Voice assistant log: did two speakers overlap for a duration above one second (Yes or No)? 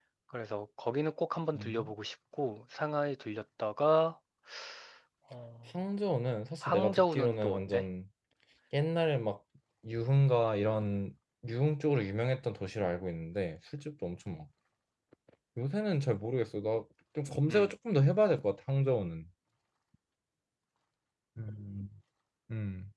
Yes